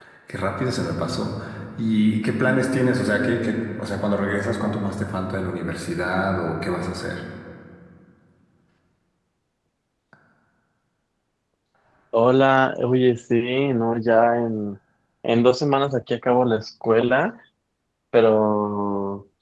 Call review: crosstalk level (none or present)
none